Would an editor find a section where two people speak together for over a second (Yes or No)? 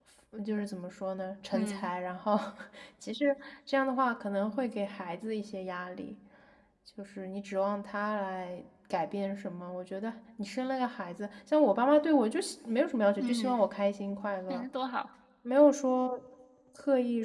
No